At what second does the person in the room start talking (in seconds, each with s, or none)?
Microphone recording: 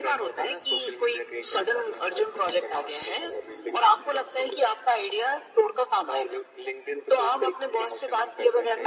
none